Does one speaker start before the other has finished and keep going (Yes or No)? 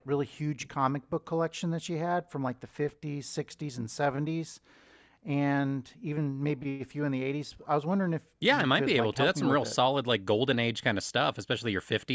Yes